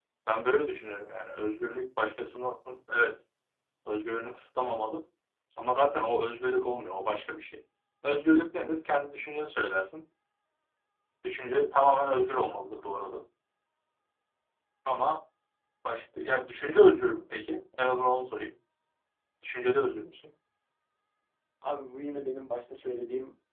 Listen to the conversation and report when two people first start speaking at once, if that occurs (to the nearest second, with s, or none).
none